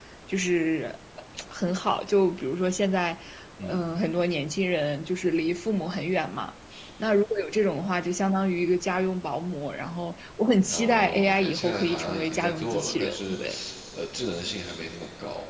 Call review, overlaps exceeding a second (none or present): present